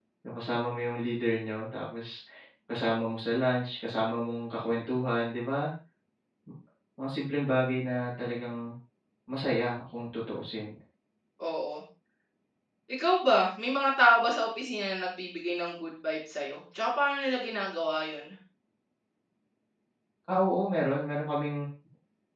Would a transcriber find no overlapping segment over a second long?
Yes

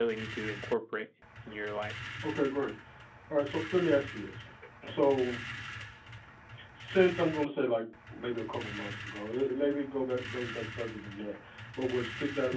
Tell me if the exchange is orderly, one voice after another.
Yes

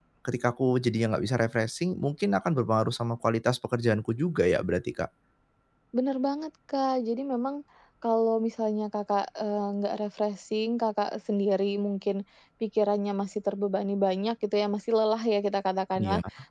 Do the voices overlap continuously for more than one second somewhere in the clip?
No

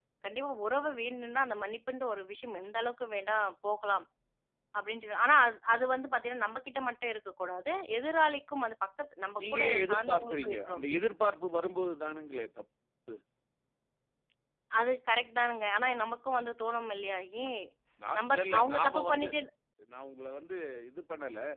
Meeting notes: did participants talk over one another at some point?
Yes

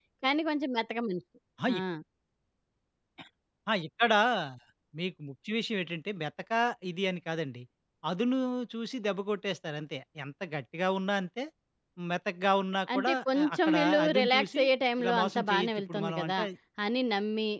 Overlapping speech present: Yes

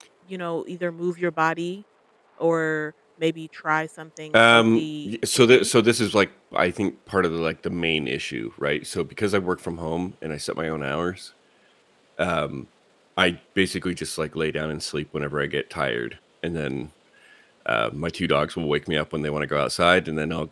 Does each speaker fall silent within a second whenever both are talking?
No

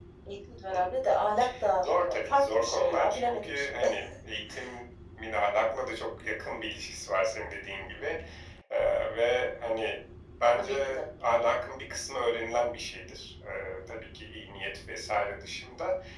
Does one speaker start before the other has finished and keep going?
Yes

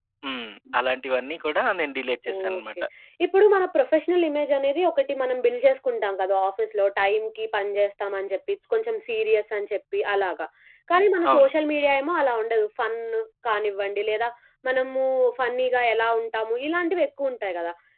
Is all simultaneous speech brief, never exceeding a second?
Yes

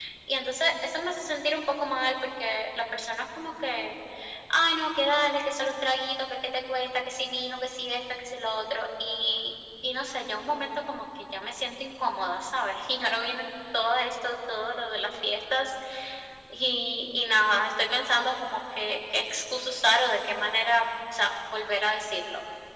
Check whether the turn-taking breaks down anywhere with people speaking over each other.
No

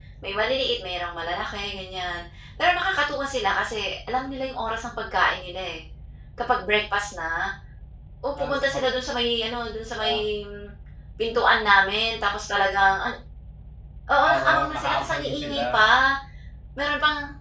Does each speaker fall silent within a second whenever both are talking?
No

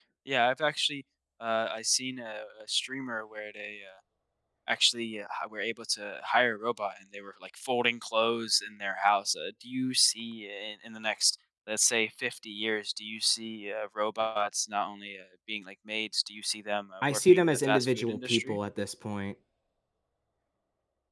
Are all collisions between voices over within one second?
No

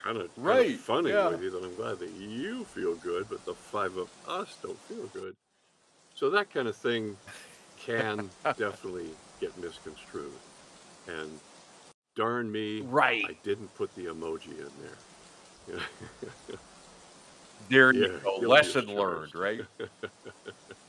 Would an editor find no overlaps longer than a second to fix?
No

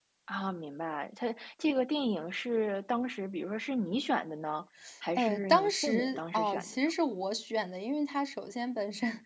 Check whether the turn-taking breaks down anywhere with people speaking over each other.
Yes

